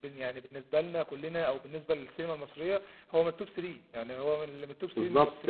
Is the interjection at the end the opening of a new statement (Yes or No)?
Yes